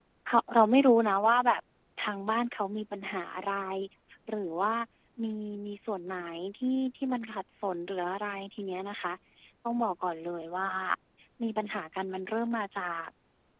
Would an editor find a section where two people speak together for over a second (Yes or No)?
No